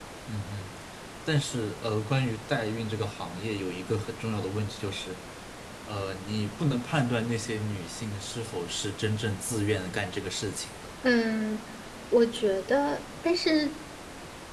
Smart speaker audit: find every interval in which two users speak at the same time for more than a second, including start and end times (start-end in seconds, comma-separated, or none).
none